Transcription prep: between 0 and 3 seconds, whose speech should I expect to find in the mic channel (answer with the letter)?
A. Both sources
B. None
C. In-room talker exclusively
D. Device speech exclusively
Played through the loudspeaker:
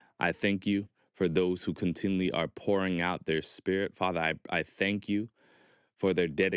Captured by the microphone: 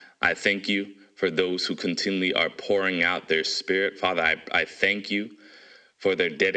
D